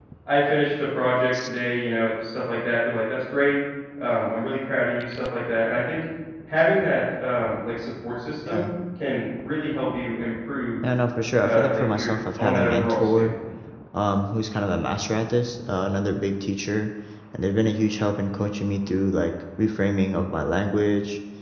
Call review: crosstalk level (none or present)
present